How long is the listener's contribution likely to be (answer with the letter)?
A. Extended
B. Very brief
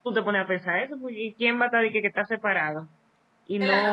A